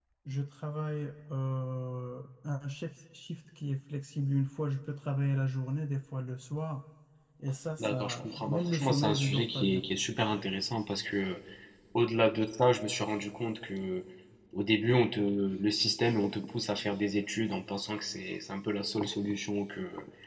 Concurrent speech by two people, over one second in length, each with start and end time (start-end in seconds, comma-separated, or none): 7.8-9.8